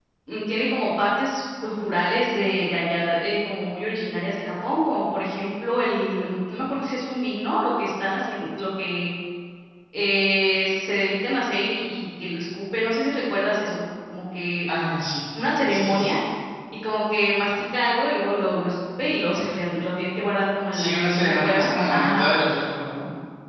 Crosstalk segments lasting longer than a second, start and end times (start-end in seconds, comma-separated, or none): 20.7-22.3